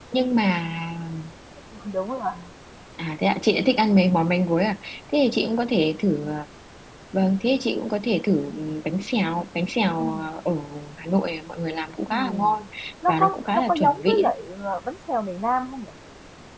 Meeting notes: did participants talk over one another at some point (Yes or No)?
Yes